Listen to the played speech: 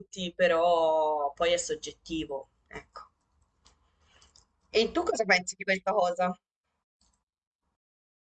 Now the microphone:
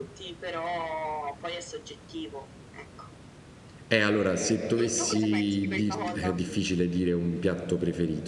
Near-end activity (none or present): present